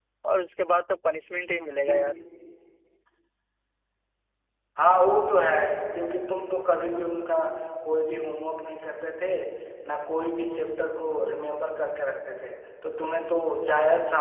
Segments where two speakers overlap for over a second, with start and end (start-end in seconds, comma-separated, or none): none